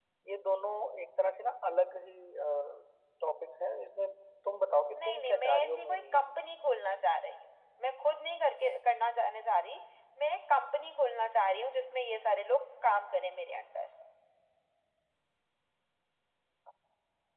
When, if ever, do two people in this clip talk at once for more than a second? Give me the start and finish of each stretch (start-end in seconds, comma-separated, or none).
5.0-6.2